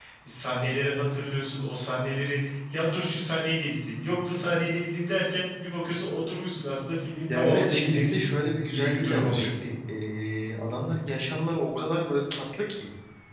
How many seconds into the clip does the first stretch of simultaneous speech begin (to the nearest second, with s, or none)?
7 s